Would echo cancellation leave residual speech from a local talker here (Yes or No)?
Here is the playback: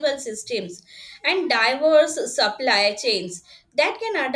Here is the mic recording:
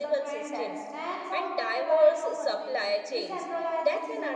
Yes